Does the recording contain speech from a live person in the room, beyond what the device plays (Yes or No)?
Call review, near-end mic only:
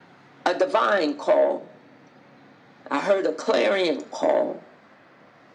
No